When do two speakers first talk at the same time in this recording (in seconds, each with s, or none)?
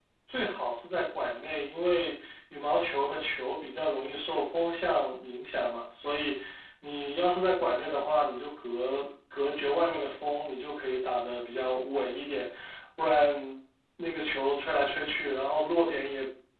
none